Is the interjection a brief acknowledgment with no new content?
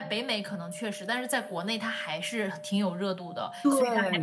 Yes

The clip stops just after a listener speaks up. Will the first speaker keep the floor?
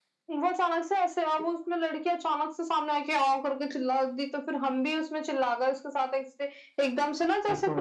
Yes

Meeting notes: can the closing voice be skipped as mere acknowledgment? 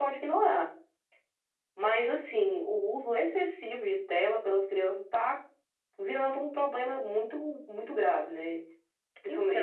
Yes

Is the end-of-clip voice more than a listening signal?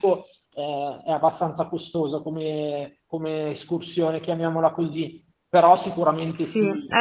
Yes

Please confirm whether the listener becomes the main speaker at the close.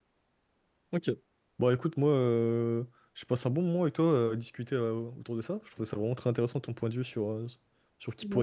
No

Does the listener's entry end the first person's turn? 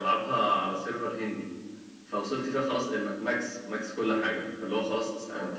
No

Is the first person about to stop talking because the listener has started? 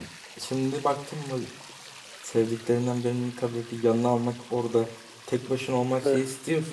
No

